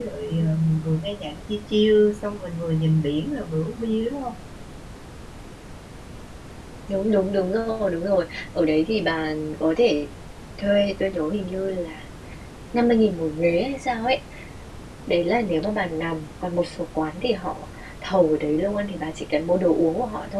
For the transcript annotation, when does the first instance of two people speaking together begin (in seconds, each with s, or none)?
none